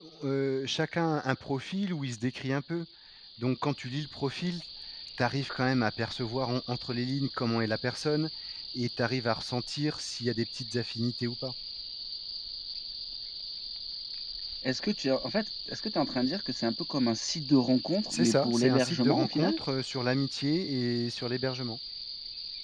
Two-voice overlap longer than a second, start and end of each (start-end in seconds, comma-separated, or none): 18.1-19.6